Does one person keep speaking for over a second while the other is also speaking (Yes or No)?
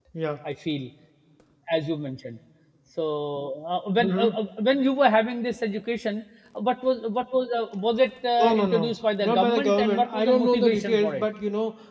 Yes